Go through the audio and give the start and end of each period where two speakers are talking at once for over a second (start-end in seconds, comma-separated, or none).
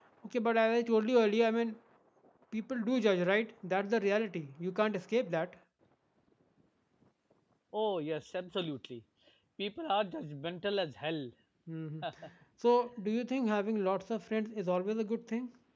none